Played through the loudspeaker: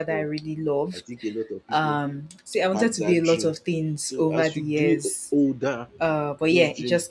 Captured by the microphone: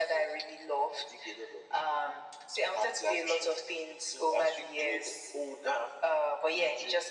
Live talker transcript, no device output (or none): none